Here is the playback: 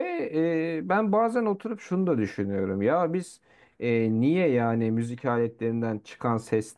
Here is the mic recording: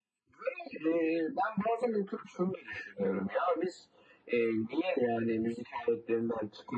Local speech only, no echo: none

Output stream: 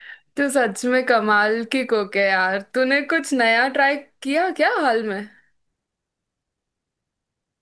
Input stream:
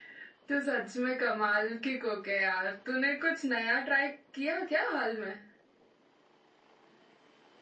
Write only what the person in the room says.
none

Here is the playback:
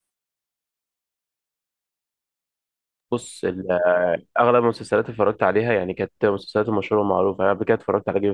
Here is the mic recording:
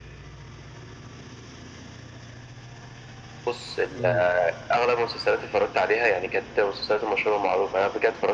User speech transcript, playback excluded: امم

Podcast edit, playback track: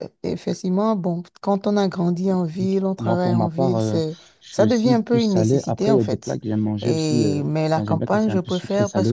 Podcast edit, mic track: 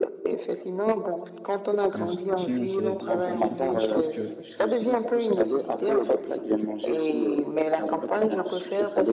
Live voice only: un chien, c'est c'est pas facile, quoi. Je trouve que,

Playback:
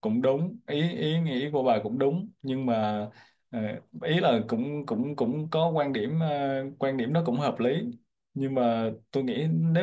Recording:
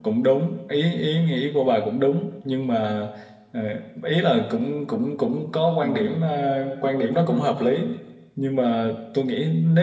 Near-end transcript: Ừ.

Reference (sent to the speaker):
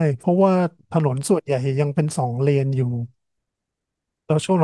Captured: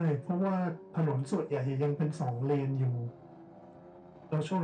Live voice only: none

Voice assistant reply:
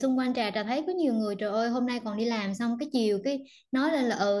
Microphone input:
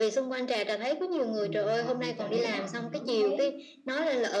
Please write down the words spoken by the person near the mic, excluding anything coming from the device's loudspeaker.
mình là người trợ lý mà mình hứng hết

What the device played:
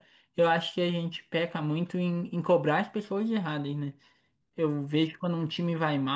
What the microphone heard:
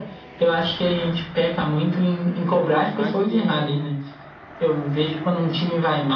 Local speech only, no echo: por uma fase de,

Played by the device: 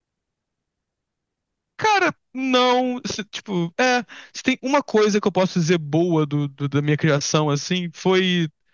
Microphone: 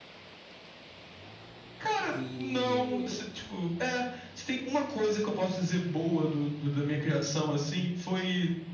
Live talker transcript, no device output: de.

